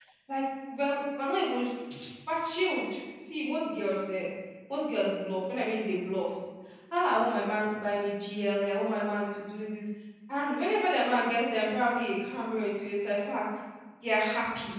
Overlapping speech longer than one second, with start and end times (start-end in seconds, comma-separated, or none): none